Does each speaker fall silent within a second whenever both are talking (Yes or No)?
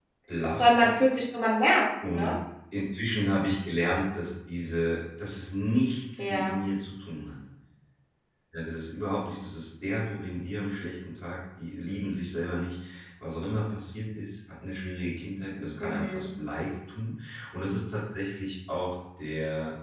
Yes